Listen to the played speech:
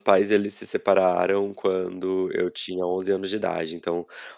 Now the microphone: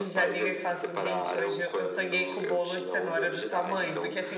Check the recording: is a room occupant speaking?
Yes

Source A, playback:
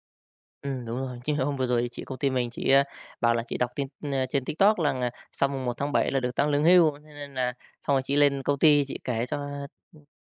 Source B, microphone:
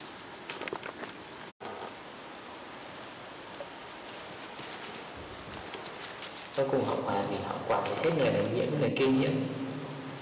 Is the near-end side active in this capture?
Yes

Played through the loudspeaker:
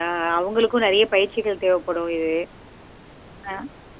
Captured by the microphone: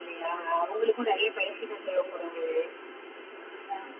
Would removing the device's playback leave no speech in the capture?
Yes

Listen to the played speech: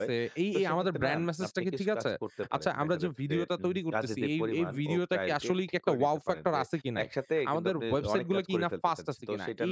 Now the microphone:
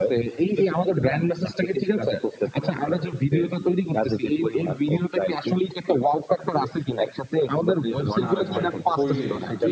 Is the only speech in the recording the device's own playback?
No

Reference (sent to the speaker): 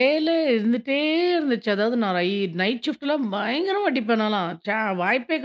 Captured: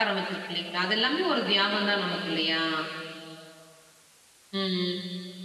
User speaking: Yes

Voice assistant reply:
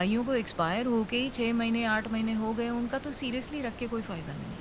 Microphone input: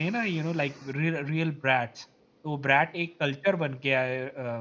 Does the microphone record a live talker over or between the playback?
Yes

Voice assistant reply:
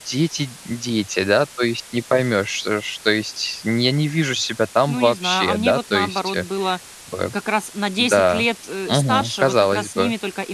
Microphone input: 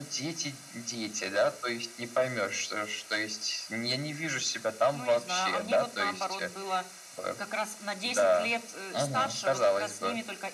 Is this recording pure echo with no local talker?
Yes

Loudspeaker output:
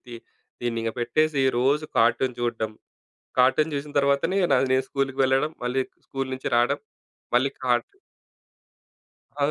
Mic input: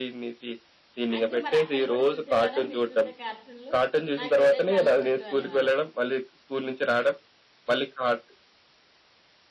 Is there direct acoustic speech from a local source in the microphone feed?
Yes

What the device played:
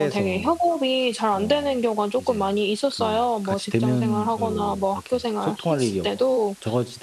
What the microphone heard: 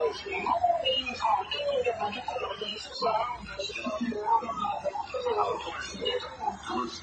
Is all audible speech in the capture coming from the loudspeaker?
Yes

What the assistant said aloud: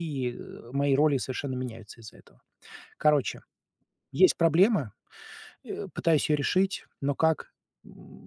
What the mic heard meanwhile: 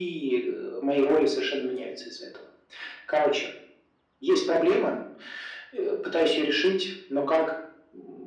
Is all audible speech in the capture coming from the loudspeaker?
Yes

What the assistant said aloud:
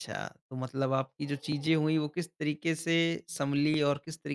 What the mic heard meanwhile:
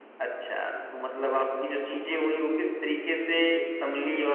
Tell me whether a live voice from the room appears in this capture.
No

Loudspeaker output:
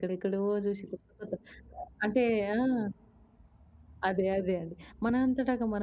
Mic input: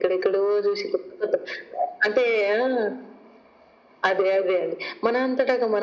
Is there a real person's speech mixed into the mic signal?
No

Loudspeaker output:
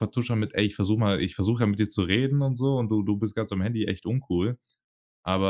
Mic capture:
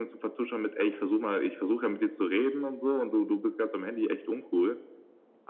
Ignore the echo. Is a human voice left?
No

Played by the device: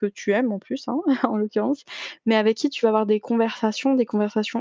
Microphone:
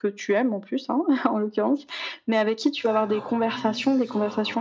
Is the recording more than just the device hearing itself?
Yes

